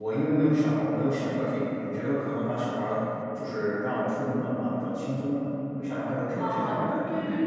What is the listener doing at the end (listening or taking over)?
taking over